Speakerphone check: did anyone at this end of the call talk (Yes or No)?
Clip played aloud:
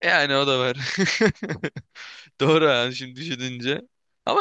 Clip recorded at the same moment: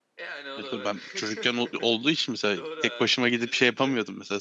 Yes